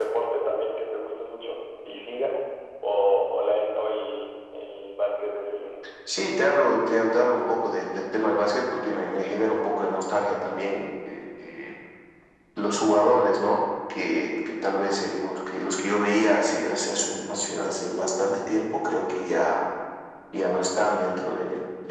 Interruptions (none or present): none